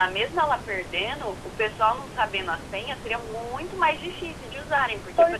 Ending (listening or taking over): taking over